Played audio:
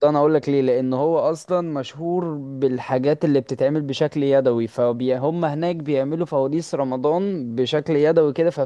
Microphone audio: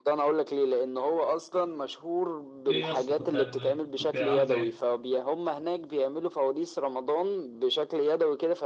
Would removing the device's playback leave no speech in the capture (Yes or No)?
No